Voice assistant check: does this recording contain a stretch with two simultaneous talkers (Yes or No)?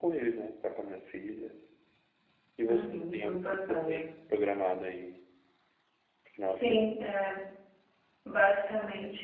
Yes